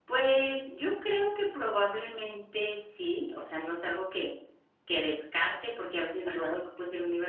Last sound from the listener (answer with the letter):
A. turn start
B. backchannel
B